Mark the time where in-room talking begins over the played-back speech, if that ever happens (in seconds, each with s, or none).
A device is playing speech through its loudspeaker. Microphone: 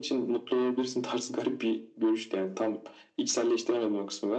none